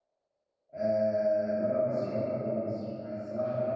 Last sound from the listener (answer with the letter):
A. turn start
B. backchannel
B